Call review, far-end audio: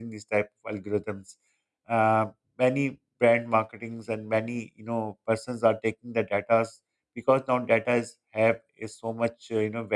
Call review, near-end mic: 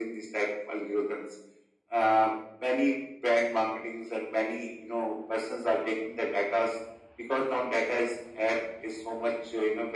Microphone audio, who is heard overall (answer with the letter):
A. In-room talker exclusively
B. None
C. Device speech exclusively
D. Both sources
C